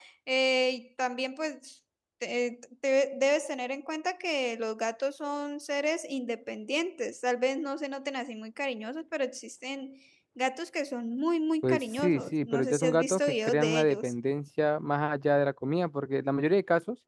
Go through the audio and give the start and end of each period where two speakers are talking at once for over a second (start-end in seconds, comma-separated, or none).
11.6-14.1